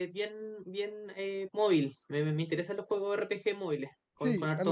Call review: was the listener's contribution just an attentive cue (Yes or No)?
No